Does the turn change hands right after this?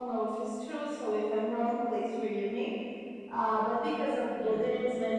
No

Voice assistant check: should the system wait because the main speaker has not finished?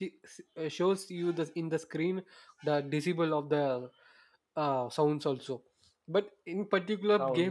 Yes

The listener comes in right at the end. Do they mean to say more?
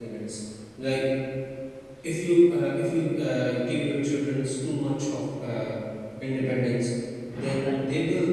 No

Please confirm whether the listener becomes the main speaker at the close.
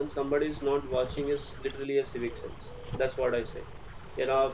No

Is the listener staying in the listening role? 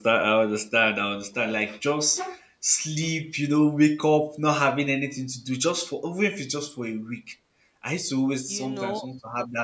Yes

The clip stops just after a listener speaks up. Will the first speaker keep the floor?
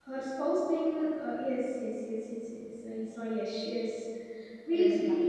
Yes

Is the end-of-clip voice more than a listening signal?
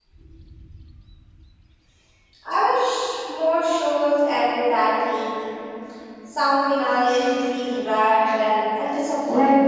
Yes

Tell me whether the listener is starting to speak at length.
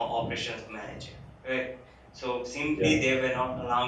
No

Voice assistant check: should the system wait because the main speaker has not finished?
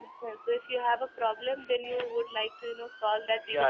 No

